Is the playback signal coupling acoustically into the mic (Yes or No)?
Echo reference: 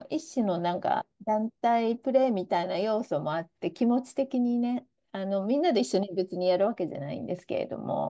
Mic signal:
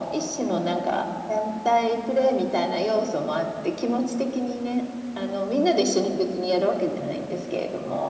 Yes